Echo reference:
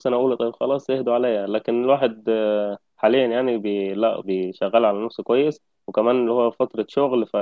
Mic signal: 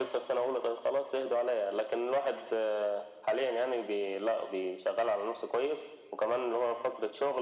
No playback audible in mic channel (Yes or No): No